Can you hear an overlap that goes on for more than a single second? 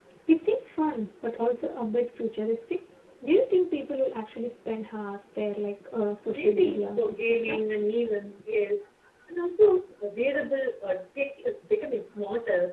Yes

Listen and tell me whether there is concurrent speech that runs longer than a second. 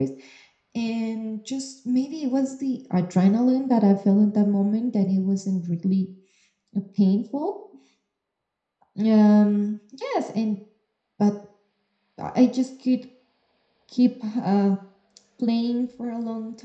No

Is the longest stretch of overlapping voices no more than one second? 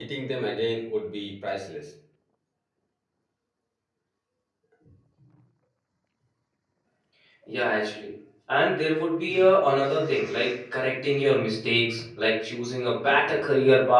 Yes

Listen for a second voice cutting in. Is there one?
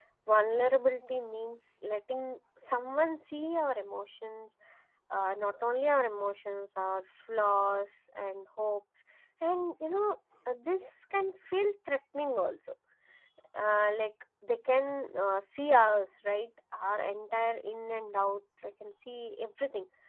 No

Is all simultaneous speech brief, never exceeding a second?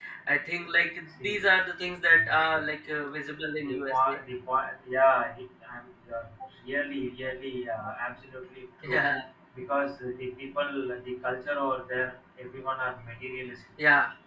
Yes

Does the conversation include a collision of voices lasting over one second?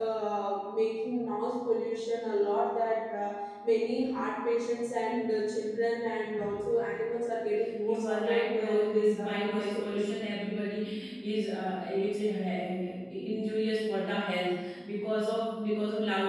Yes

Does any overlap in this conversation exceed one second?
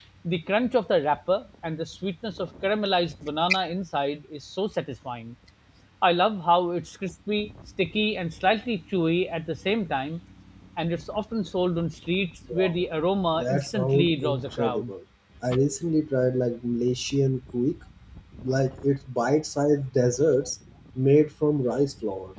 Yes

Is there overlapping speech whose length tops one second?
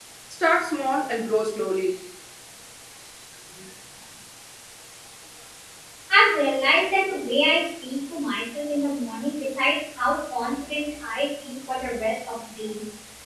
No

